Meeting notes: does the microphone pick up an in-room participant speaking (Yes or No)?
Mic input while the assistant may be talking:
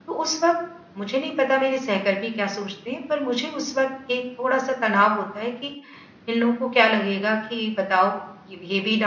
Yes